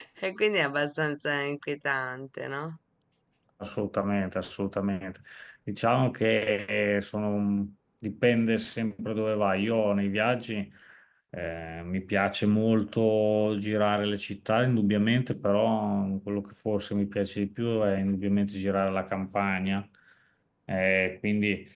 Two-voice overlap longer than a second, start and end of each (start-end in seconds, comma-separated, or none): none